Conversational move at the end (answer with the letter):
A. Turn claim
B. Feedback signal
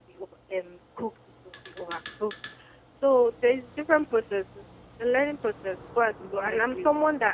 B